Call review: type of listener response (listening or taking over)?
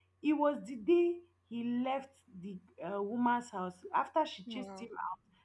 listening